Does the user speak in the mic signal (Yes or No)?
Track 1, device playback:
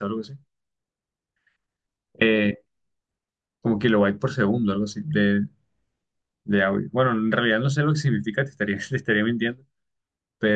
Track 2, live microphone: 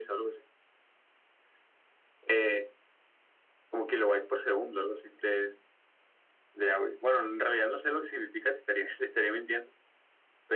No